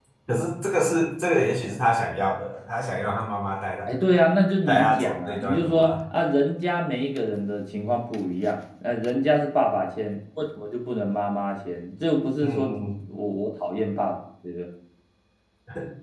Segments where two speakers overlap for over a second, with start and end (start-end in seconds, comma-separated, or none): 4.7-5.9